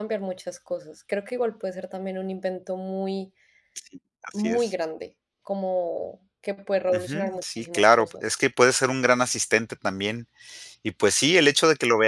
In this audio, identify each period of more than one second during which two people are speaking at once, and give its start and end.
6.9-8.2

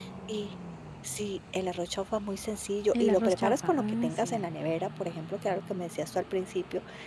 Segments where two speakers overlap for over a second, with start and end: 3.0-4.4

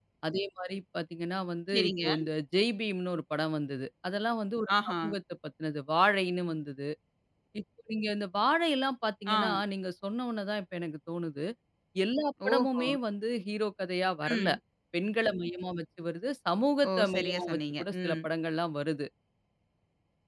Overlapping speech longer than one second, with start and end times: 16.9-18.2

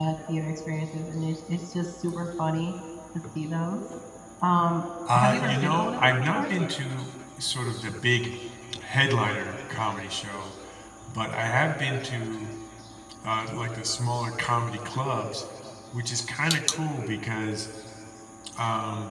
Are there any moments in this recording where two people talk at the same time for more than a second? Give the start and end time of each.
5.1-6.5

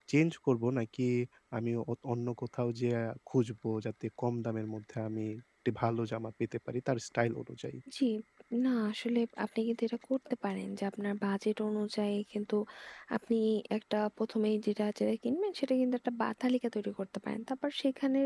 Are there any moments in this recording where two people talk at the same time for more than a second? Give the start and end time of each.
none

